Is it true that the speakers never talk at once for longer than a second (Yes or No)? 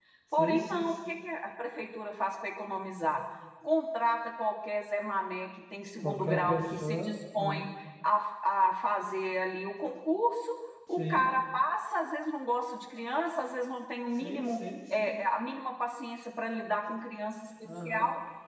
No